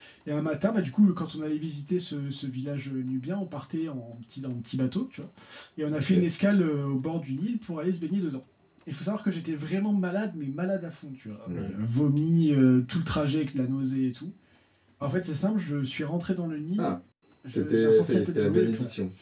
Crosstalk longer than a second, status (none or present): present